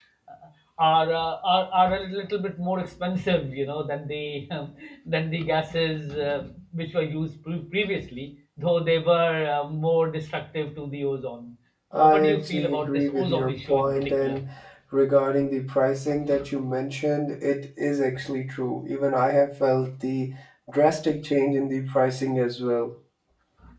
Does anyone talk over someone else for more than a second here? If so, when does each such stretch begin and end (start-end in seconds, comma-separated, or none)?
11.9-14.4